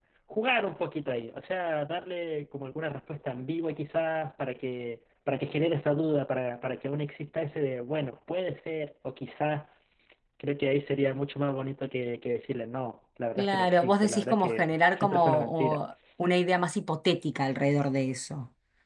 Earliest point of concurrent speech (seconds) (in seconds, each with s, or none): 13.4 s